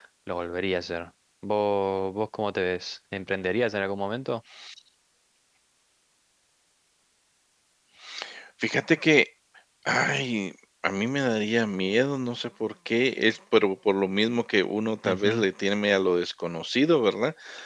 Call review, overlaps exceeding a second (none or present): none